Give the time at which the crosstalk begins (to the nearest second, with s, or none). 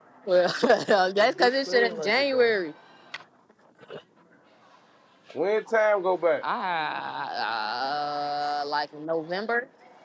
1 s